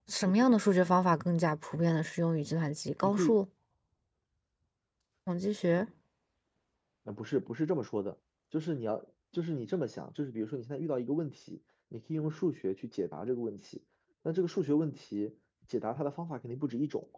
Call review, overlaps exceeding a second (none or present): none